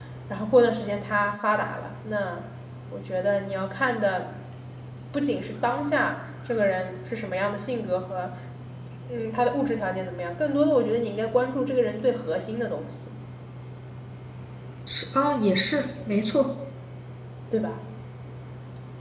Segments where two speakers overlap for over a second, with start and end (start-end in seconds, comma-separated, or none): none